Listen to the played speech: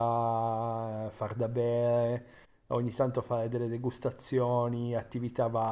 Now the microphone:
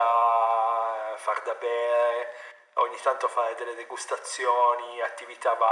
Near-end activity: none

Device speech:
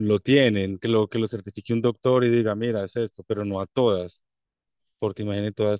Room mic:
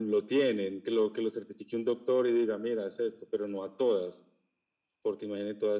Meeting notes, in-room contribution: none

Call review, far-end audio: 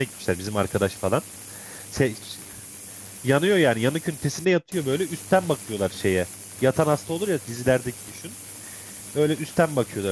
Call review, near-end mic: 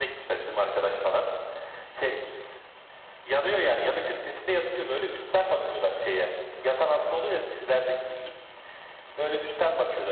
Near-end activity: none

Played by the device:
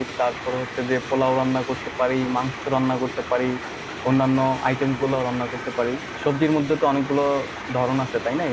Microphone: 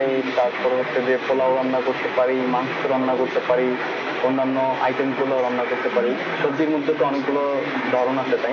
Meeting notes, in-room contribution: present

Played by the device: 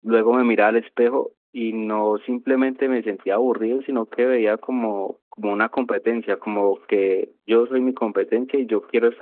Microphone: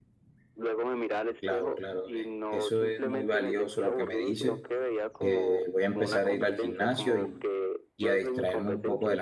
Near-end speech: present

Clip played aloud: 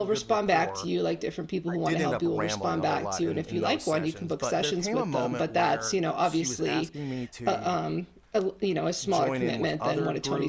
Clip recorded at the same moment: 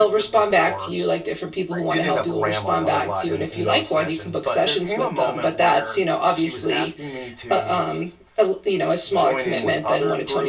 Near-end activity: none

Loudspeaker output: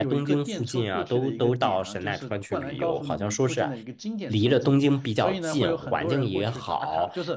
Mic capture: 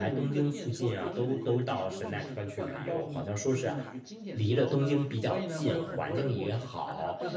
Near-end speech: present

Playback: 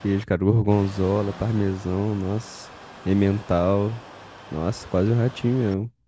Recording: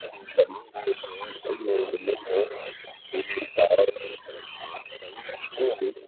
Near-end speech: none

